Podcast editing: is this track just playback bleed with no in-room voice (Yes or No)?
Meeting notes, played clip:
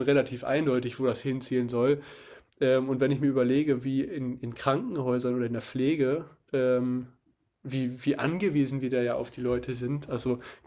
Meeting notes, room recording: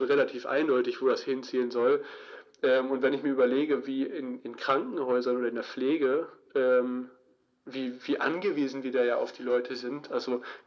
Yes